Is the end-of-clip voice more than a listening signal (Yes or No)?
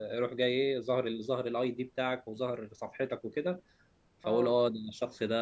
No